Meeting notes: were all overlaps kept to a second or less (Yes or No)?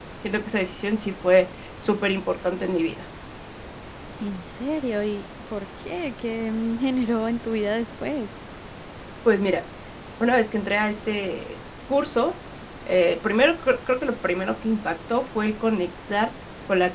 Yes